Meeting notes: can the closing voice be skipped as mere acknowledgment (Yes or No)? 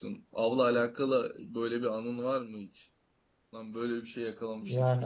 No